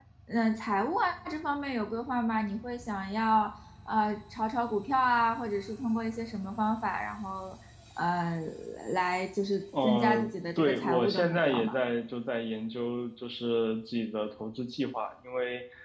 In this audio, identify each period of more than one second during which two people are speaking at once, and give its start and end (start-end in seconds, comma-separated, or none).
9.8-11.8